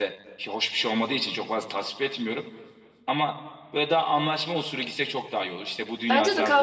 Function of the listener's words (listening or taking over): taking over